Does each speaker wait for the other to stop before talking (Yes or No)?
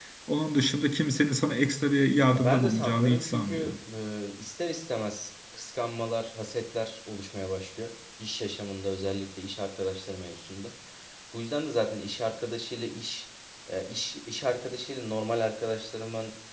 No